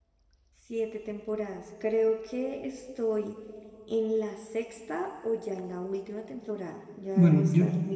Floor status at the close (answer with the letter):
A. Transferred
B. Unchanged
A